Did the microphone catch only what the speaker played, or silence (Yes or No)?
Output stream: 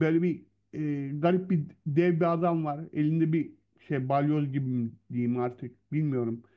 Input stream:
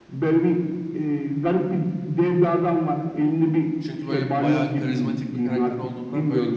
No